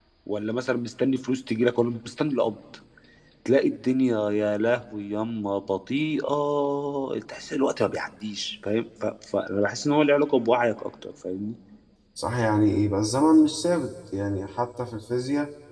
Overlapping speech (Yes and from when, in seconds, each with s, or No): No